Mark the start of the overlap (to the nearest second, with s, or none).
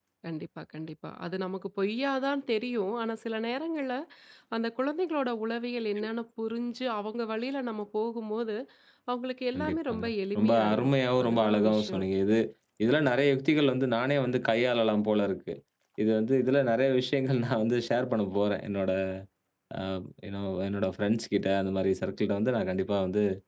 10 s